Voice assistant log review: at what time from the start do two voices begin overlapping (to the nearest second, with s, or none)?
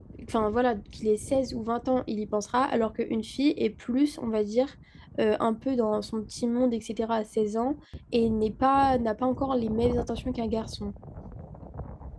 none